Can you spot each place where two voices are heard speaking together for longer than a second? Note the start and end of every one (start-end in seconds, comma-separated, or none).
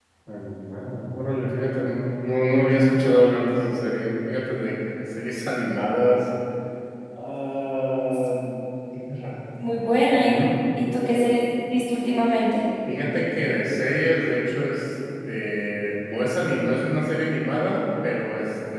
none